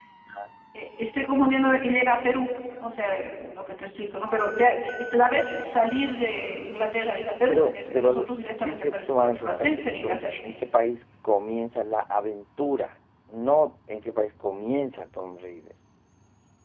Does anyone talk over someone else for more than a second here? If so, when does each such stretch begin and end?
7.5-10.4

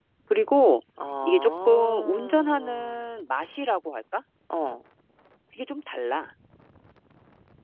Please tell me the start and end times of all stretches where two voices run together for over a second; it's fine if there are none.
1.2-3.1

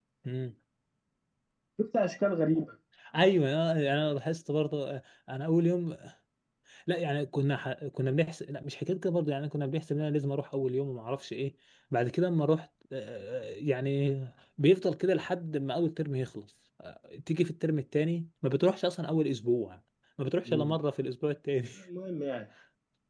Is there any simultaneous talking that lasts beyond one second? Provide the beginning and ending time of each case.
none

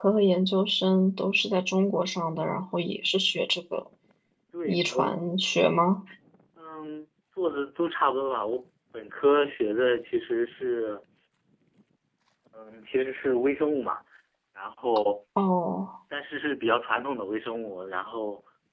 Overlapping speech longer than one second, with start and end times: none

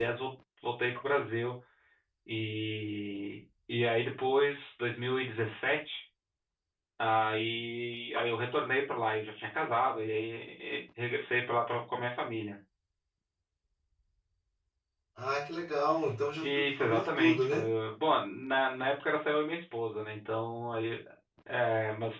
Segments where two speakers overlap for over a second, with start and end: 16.4-17.7

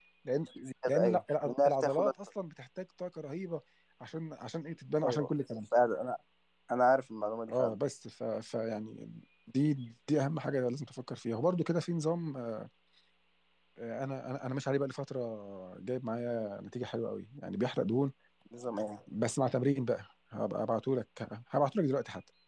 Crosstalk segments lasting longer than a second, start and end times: 0.9-2.1

